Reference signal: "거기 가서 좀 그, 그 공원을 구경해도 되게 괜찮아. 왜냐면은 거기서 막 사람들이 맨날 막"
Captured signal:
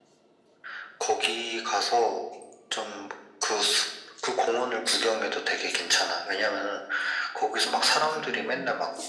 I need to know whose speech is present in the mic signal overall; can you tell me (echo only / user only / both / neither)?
both